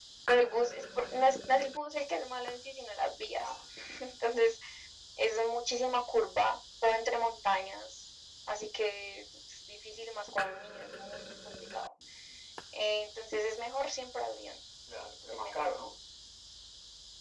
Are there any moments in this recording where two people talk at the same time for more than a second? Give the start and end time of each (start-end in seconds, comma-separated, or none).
none